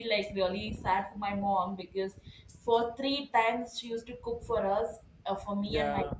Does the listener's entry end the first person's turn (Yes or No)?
No